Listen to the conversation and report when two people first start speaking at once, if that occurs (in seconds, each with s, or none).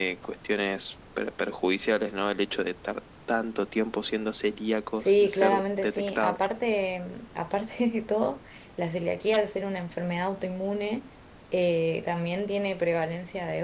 5.0 s